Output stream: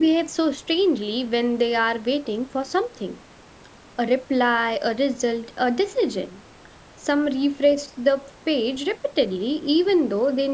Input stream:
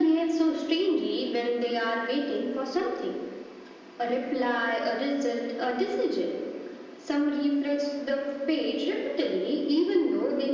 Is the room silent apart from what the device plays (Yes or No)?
Yes